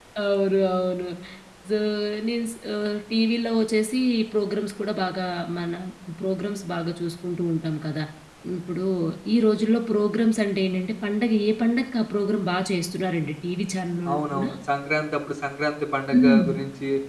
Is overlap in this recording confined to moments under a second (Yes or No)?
Yes